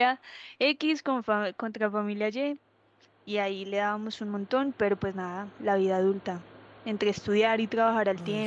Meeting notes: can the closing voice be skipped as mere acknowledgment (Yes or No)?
Yes